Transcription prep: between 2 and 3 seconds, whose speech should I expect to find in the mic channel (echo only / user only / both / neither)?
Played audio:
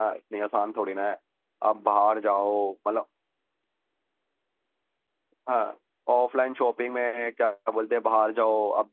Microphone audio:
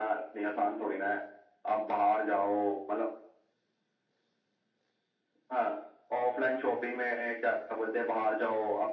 echo only